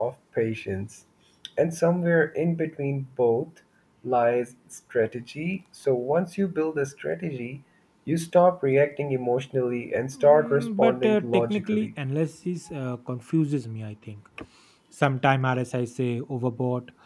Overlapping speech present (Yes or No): Yes